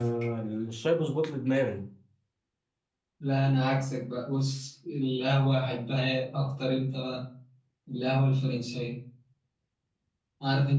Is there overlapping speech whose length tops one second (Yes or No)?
No